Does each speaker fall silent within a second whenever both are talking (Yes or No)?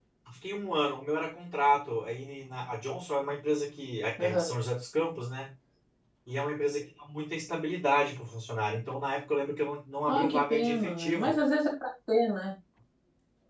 No